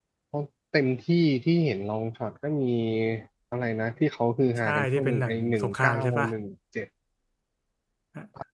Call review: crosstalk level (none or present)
present